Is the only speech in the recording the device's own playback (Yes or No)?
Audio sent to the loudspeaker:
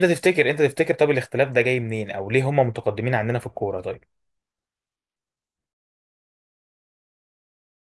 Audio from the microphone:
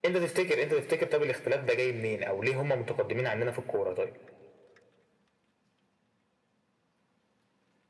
Yes